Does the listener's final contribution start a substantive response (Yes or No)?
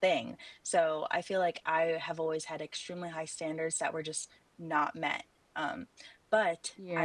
Yes